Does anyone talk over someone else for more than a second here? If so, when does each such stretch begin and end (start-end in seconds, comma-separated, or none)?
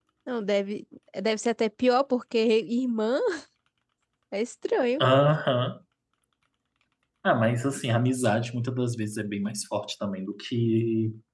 none